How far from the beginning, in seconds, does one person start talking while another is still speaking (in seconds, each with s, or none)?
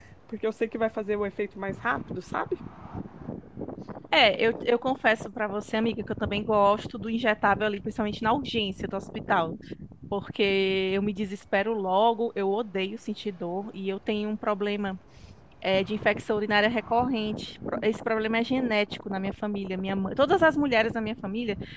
none